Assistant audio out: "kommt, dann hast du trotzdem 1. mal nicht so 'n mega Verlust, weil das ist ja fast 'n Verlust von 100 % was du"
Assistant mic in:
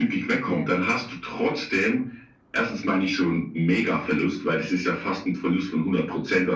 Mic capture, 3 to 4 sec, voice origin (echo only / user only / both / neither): echo only